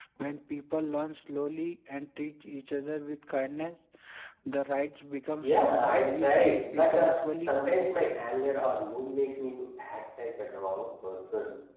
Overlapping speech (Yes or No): Yes